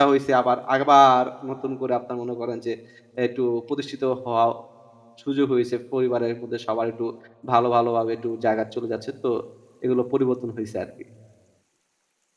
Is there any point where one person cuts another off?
No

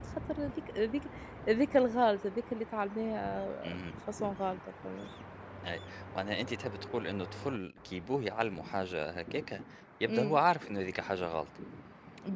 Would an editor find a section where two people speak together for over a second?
No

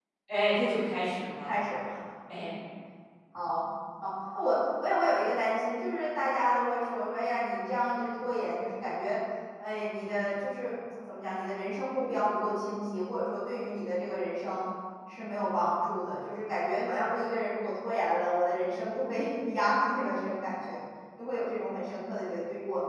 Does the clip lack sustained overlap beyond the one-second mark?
Yes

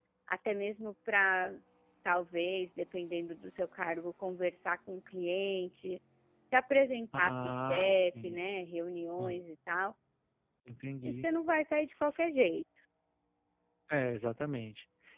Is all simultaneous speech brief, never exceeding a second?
No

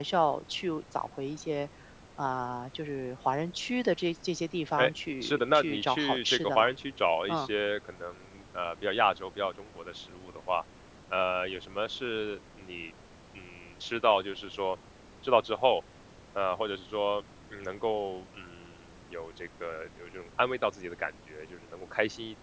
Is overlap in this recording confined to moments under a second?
No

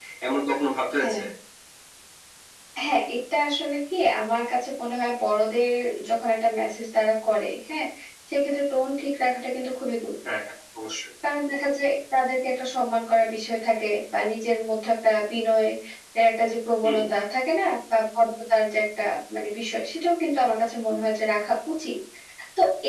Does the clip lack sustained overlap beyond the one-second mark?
Yes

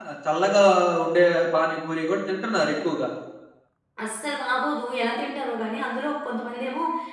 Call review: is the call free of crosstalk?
Yes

